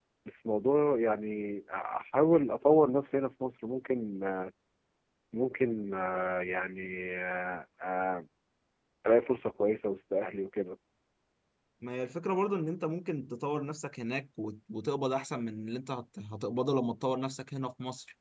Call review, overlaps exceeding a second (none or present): none